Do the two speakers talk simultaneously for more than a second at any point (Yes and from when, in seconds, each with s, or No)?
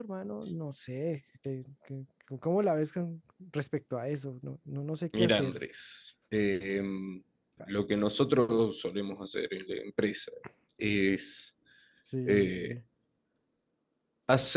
No